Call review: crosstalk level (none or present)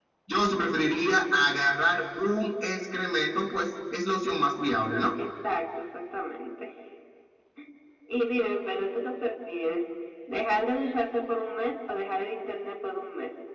none